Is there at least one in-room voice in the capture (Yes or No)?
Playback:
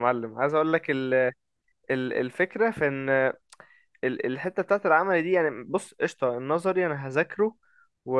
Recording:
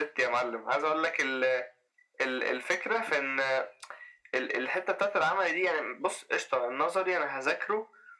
No